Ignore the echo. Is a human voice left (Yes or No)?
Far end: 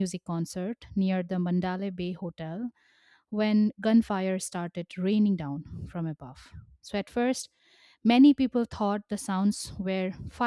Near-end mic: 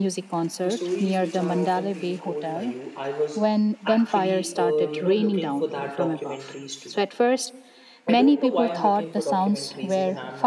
Yes